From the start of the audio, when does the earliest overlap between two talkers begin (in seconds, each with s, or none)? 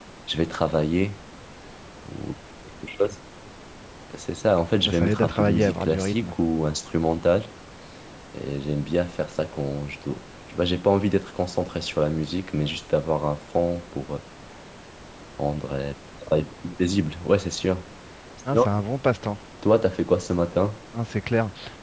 4.8 s